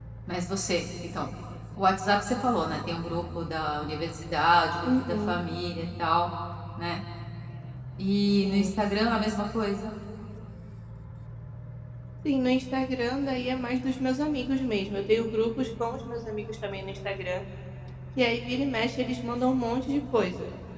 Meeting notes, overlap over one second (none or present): none